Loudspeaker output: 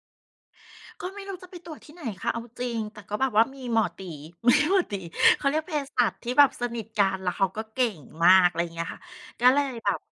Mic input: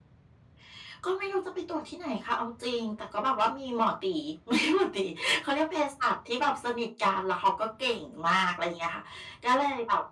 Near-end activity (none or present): none